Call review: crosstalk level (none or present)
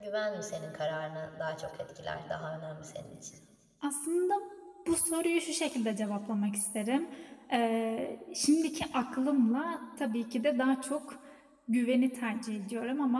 none